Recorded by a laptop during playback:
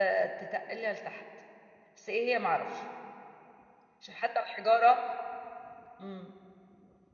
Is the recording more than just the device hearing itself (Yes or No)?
Yes